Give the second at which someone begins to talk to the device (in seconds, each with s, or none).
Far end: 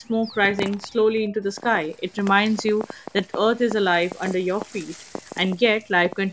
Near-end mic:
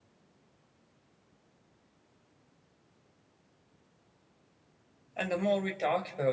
5.2 s